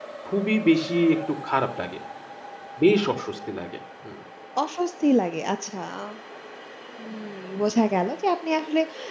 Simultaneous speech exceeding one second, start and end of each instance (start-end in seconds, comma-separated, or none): none